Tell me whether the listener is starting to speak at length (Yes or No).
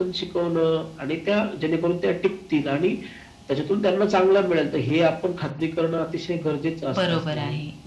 Yes